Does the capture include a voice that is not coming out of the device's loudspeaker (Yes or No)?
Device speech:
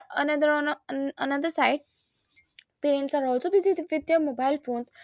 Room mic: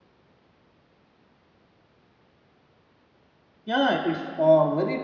Yes